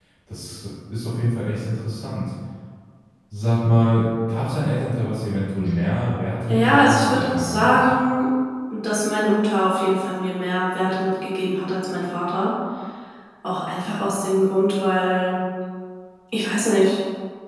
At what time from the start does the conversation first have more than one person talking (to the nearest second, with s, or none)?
6 s